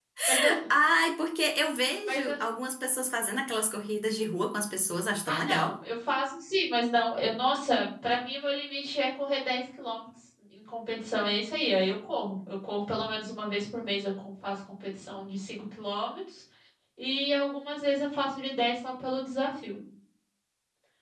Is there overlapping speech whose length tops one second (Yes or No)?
No